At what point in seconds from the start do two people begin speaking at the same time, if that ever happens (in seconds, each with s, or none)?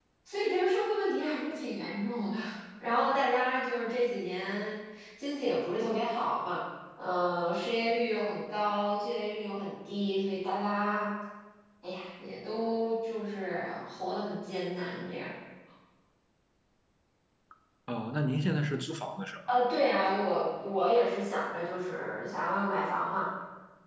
none